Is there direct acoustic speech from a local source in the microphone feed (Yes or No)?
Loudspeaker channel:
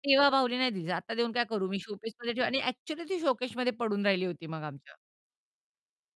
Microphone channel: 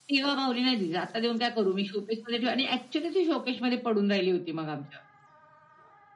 No